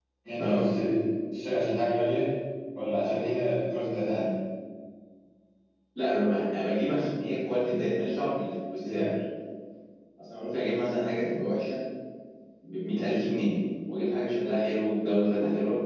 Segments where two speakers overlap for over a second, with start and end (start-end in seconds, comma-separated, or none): none